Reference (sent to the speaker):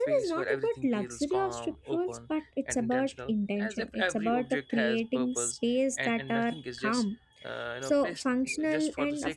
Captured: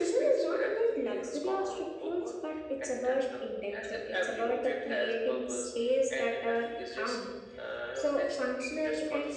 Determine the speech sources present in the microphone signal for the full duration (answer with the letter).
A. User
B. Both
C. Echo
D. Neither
C